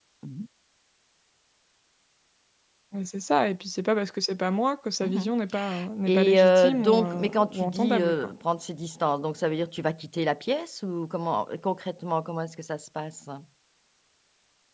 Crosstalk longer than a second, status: present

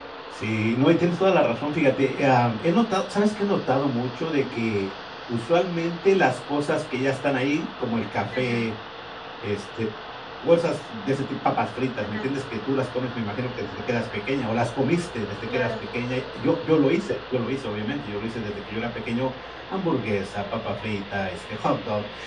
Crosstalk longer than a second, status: none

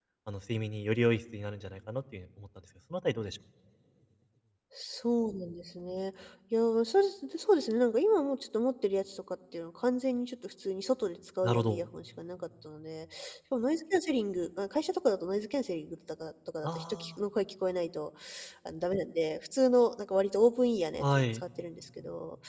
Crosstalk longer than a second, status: none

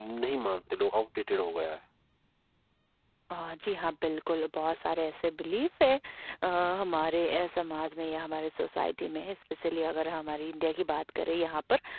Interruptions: none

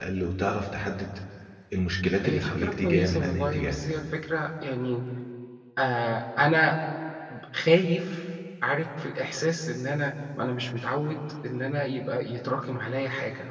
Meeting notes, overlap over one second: present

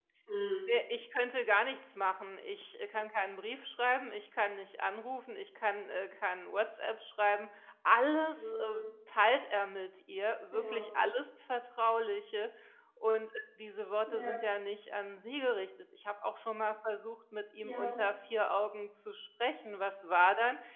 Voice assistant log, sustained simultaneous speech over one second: none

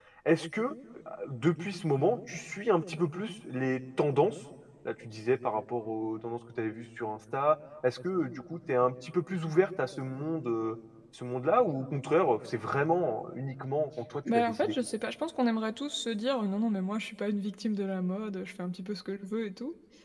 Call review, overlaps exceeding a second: none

